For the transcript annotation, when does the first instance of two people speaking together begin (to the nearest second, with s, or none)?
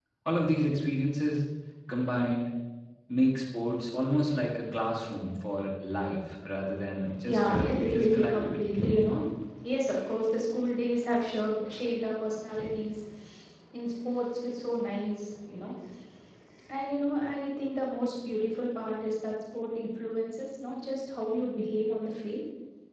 7 s